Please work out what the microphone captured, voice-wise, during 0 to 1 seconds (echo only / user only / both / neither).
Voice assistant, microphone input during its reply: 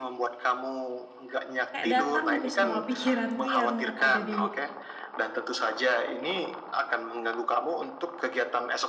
echo only